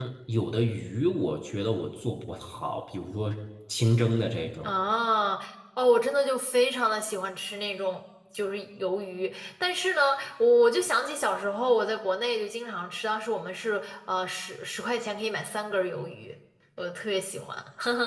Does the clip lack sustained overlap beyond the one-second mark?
Yes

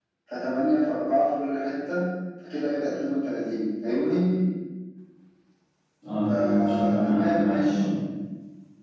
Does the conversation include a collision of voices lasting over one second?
Yes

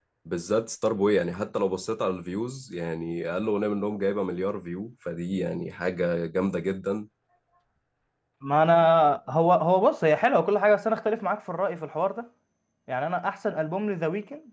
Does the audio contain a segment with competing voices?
No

